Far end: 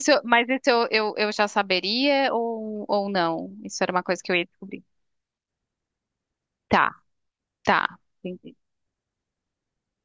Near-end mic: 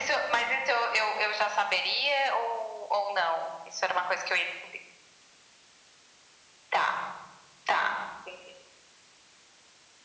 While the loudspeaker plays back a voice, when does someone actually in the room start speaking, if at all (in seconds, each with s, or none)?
none